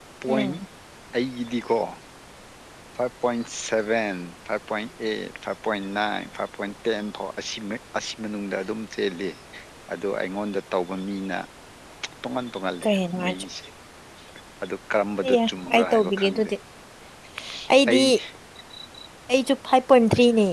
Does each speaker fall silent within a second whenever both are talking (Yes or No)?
No